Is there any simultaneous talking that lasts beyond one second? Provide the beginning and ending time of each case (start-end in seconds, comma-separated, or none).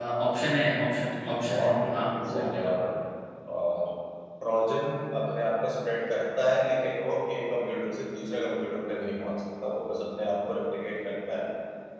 1.1-2.6